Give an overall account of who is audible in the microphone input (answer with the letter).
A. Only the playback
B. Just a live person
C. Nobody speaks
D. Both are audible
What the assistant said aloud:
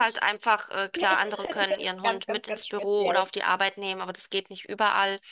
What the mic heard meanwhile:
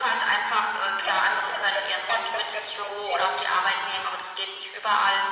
A